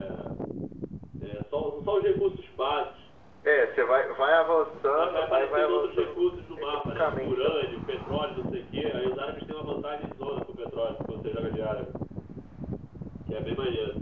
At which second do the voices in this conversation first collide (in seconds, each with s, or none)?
5.0 s